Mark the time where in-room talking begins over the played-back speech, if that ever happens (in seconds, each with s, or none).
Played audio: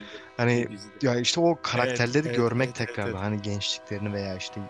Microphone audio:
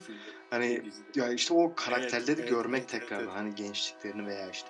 none